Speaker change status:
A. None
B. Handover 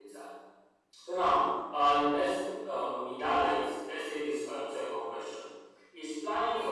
A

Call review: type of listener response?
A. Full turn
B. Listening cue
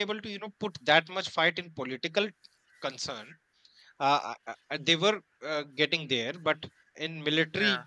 B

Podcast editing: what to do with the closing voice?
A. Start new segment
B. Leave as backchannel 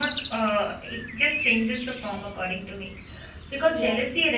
B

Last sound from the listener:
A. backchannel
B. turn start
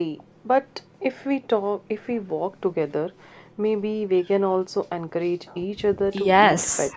B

